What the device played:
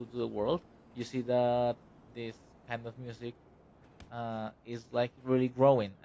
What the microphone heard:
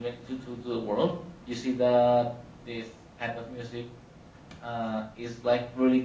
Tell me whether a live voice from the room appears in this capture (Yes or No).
No